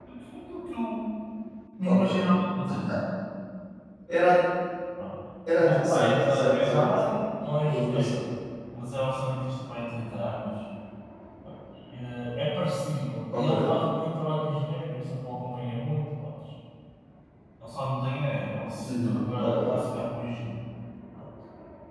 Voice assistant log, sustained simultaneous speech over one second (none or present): present